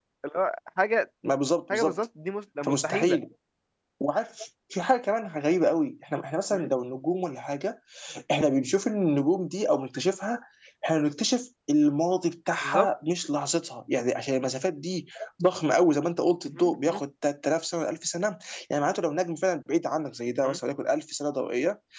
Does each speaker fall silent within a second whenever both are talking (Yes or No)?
Yes